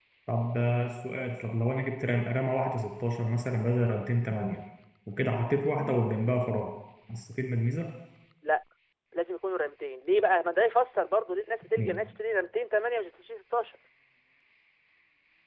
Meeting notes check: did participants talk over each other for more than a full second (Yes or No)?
No